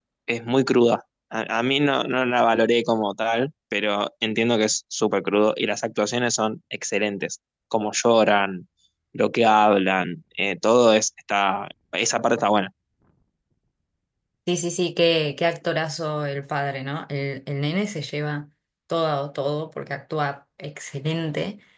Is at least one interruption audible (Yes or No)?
No